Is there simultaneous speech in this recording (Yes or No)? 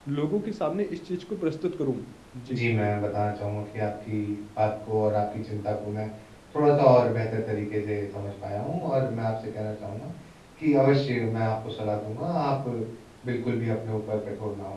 No